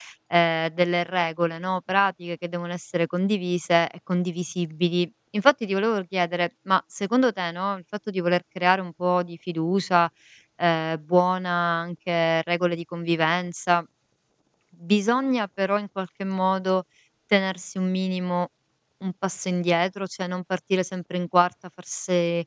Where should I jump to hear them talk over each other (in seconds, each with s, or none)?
none